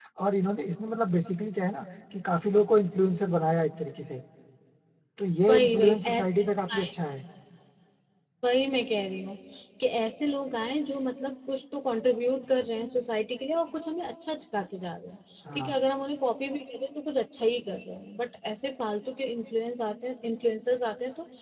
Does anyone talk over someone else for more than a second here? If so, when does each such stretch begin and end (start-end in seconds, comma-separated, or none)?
5.5-6.9